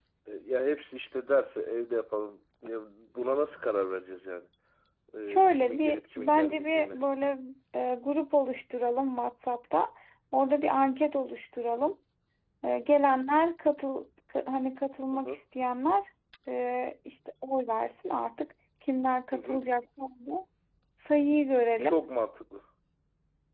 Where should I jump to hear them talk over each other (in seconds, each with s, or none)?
5.2 s